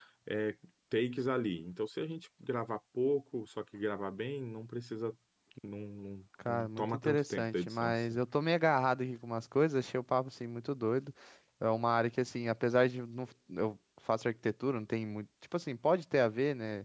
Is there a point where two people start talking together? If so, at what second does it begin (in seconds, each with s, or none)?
6.5 s